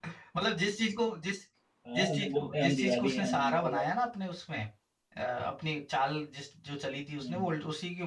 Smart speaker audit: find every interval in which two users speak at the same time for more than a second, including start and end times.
1.9-3.8

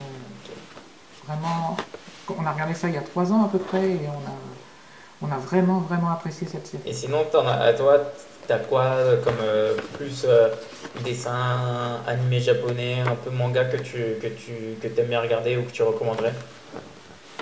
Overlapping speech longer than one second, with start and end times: none

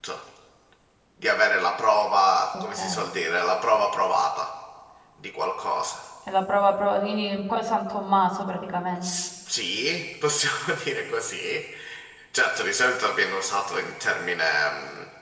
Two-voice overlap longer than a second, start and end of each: none

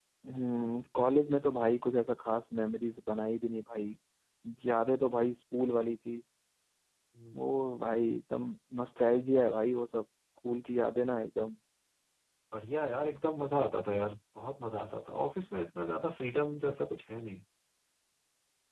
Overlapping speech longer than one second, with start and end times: none

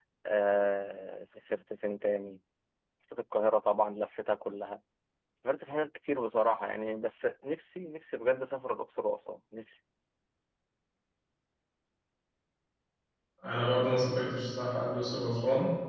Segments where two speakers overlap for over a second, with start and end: none

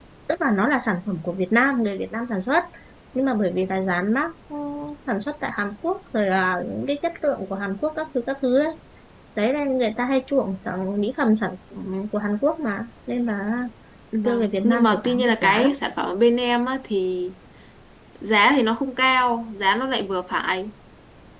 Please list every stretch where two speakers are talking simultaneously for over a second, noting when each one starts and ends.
14.2-15.7

